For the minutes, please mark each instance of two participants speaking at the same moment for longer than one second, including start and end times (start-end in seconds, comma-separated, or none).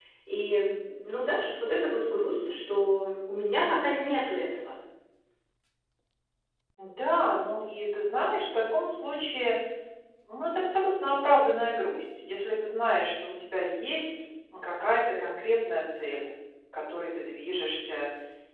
none